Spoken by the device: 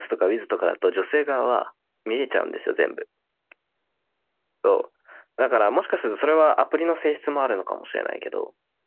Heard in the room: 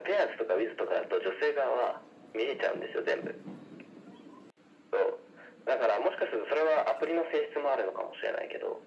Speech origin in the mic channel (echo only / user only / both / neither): echo only